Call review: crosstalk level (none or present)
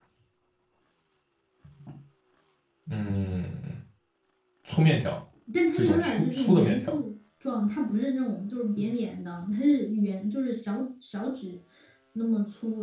present